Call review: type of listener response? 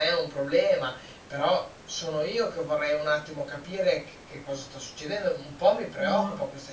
listening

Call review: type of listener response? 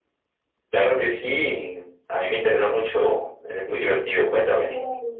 taking over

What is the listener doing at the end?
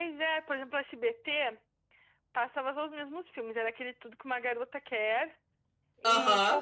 listening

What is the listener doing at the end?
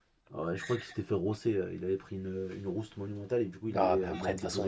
taking over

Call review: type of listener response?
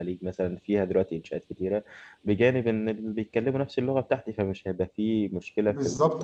taking over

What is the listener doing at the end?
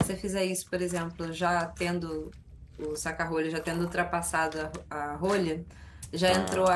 listening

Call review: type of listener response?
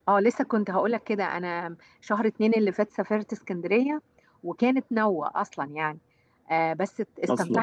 listening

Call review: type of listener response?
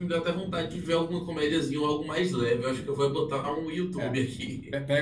taking over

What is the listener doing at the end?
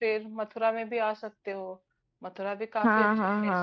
taking over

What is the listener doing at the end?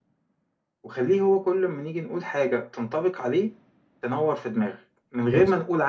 listening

